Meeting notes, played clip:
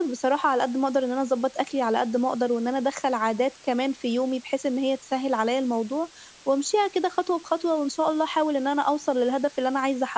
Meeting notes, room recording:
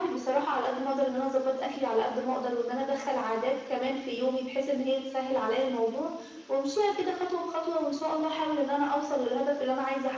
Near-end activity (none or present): none